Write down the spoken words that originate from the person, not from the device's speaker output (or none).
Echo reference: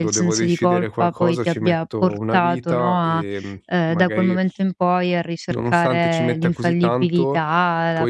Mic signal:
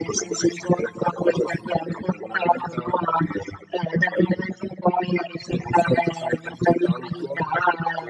none